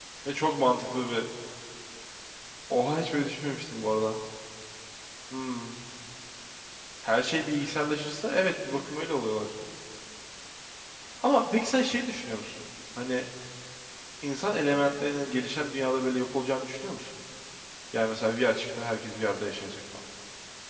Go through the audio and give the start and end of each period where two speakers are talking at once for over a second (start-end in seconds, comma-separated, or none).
none